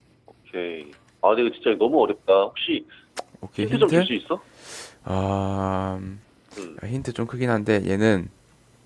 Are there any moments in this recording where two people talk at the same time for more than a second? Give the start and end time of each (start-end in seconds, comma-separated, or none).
none